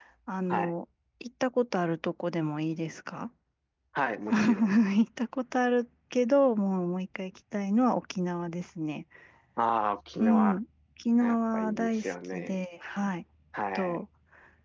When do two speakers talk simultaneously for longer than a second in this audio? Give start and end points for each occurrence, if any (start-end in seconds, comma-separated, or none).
11.2-12.6